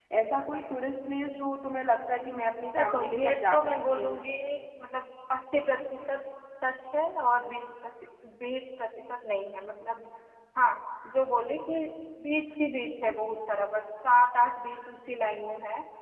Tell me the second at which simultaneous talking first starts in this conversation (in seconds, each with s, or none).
2.7 s